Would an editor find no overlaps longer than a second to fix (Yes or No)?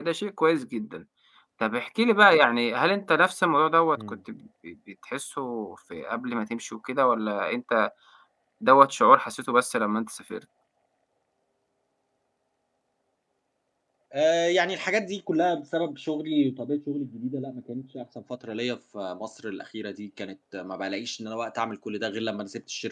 Yes